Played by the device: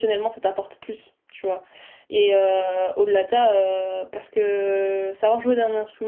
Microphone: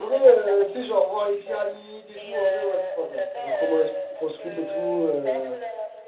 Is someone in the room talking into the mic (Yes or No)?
Yes